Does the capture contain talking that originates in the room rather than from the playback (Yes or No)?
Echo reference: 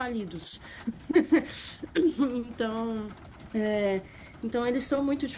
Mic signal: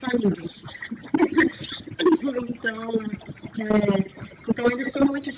No